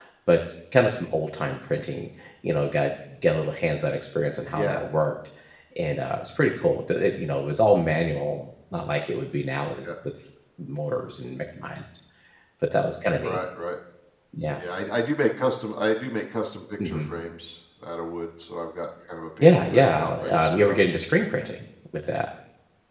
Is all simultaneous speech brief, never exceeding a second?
No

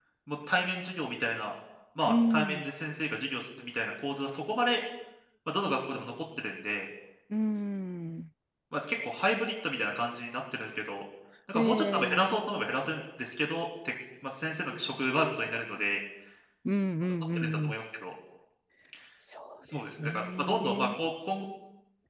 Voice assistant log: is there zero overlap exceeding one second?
No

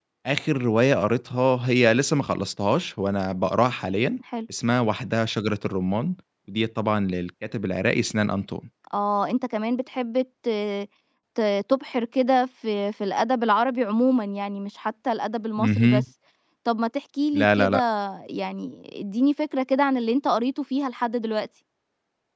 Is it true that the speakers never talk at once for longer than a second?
Yes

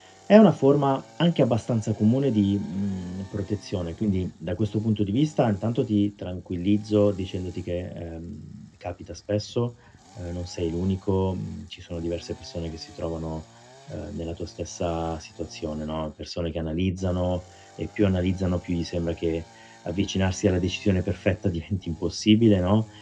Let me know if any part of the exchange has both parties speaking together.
No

